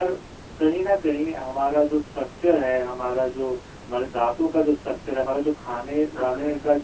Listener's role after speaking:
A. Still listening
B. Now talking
A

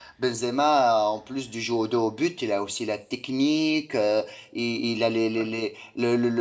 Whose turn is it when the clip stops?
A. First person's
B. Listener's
A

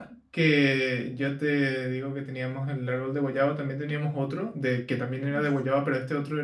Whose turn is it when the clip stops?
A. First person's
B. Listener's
A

